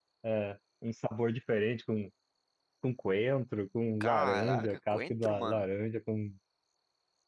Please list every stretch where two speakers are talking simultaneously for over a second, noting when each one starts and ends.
4.0-5.7

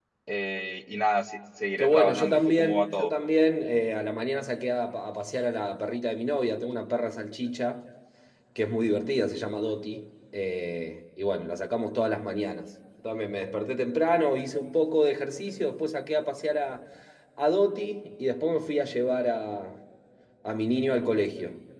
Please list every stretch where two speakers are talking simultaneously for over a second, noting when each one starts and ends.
1.8-3.1

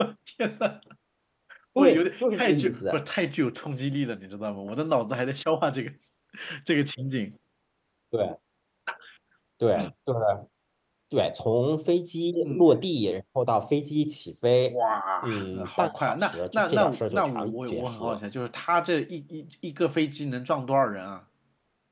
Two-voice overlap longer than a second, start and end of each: 1.8-3.0, 15.2-18.2

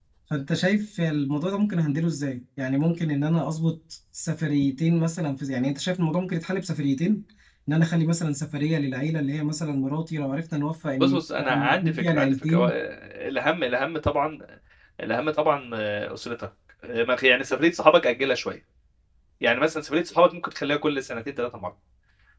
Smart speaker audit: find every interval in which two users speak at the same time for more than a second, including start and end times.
11.0-12.7

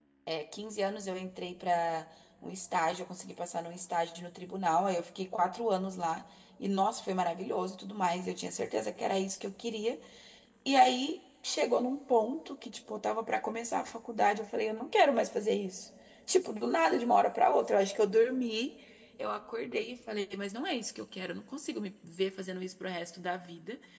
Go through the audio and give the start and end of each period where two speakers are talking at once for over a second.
none

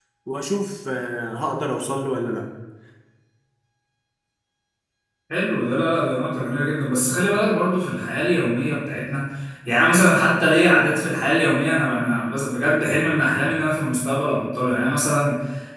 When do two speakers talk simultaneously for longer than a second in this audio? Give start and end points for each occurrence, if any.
none

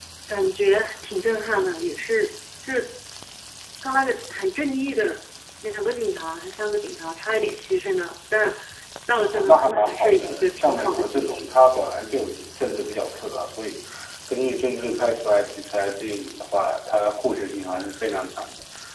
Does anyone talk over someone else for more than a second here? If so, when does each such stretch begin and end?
9.3-11.5

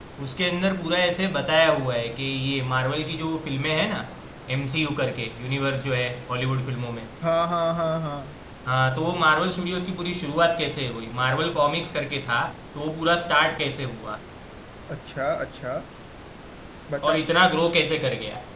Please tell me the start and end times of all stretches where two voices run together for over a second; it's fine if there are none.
none

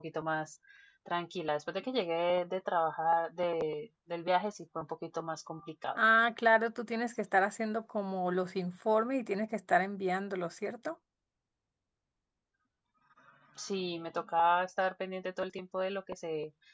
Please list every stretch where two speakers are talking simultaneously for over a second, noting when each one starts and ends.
none

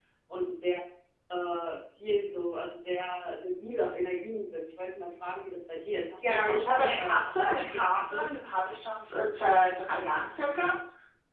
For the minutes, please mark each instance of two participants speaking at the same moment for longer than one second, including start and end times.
6.2-8.3

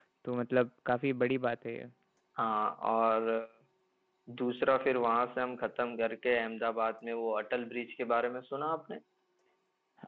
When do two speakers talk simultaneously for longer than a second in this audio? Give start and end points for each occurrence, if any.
none

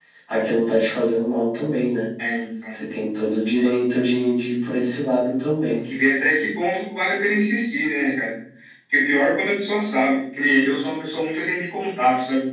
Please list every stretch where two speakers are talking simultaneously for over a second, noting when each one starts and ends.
none

